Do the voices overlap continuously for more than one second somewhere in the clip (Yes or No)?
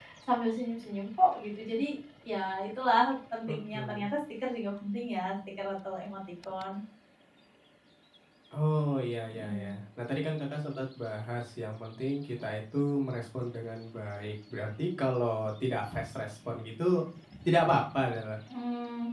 No